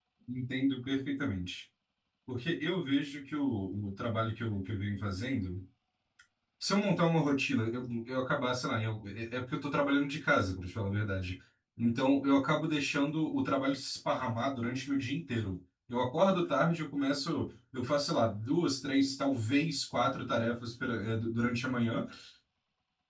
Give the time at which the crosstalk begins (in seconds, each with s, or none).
none